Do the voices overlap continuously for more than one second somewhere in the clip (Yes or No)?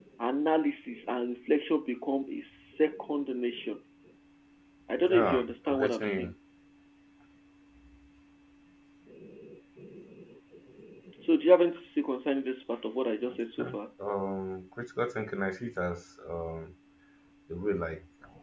Yes